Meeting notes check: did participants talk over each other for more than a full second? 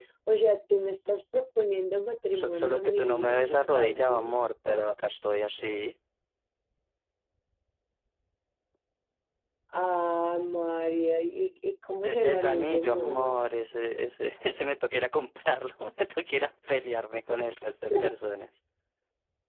Yes, from 2.3 s

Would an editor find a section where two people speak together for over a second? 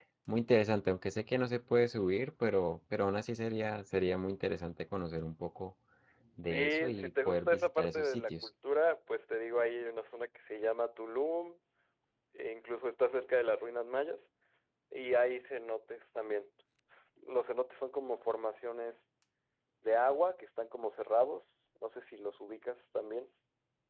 Yes, from 6.4 s

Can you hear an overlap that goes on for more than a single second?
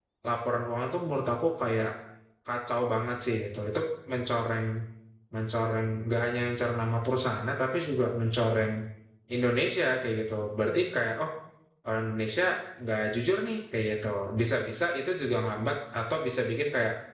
No

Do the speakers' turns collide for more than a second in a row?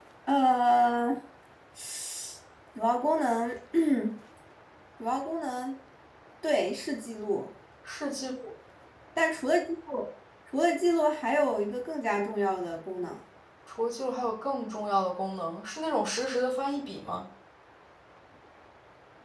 No

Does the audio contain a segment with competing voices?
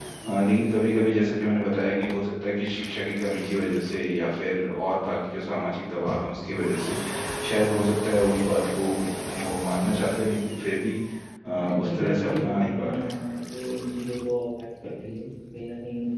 Yes, from 11.5 s

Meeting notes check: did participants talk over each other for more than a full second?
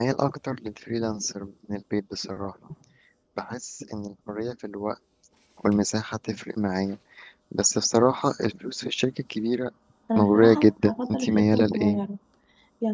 Yes, from 10.2 s

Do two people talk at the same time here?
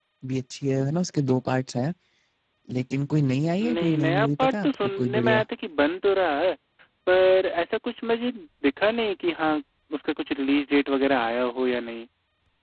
Yes, from 3.6 s

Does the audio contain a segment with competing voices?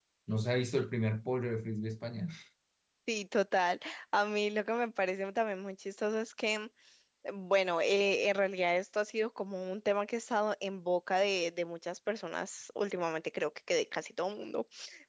No

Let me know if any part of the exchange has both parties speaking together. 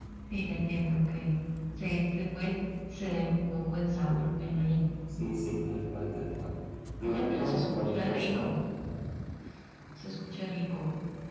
Yes, from 7.0 s

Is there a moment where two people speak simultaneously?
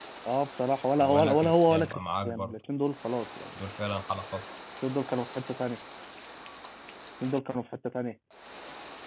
Yes, from 1.0 s

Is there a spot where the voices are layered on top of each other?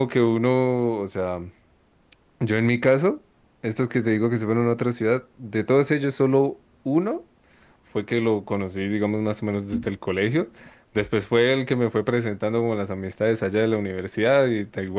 No

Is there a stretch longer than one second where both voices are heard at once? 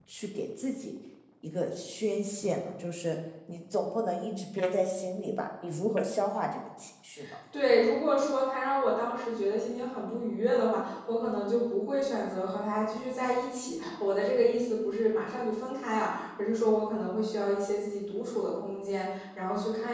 No

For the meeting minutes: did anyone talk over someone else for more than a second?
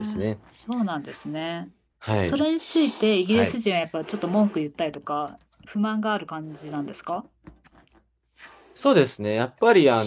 No

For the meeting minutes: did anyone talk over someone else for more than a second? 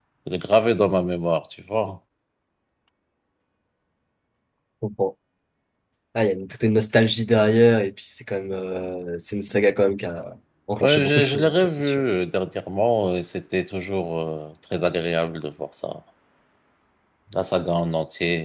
Yes, from 10.8 s

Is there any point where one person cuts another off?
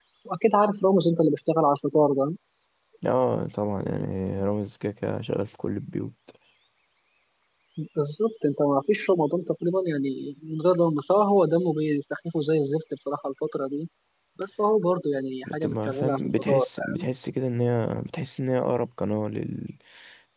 Yes, from 15.4 s

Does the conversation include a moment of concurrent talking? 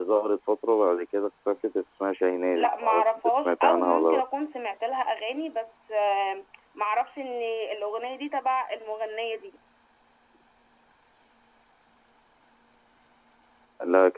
Yes, from 2.6 s

